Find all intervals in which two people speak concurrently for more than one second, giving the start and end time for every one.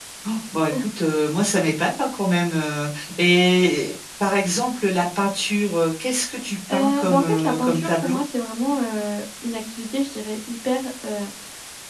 6.7-8.2

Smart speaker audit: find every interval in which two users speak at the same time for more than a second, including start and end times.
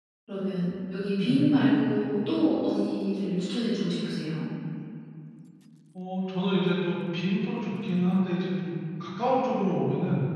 none

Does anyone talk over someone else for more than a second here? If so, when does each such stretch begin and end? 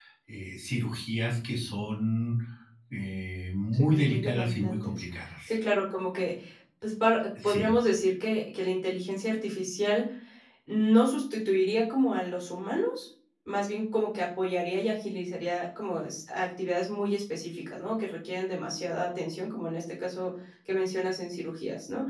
3.7-5.0

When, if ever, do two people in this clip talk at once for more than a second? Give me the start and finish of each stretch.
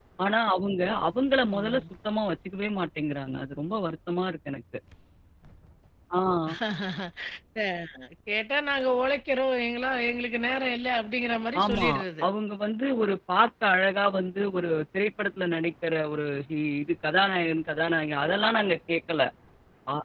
none

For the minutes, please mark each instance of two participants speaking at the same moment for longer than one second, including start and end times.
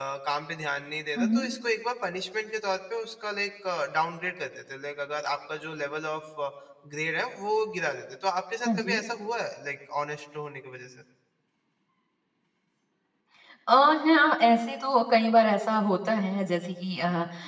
none

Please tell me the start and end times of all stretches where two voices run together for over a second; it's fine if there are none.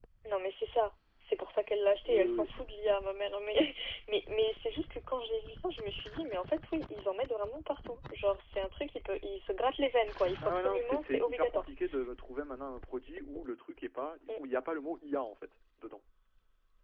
10.4-11.7

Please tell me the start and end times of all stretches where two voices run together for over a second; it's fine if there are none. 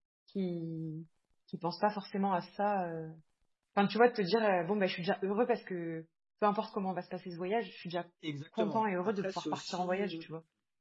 8.6-10.1

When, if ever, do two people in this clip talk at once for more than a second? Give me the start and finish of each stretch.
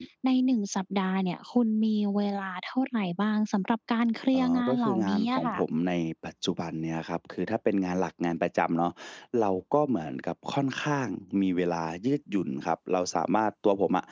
4.3-5.6

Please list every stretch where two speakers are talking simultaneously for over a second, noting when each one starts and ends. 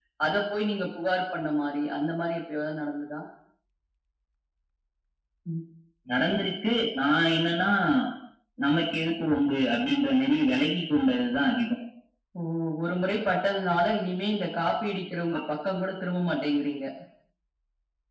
none

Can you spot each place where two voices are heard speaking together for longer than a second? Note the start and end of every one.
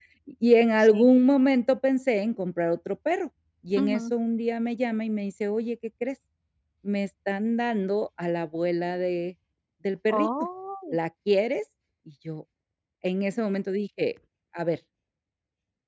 none

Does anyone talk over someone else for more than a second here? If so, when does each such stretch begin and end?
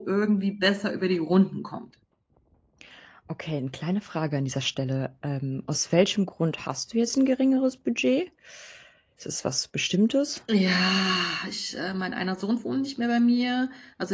none

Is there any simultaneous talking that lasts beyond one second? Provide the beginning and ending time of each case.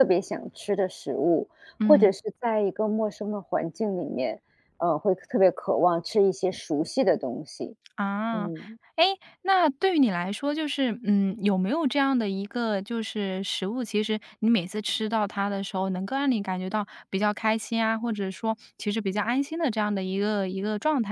none

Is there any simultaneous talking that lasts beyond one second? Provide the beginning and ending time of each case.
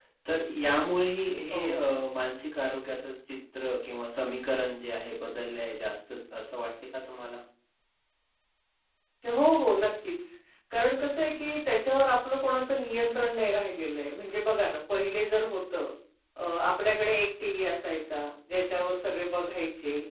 none

